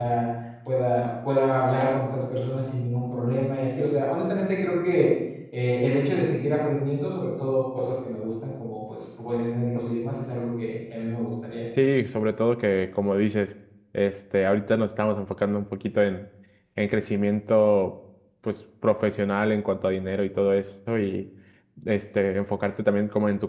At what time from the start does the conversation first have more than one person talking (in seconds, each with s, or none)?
none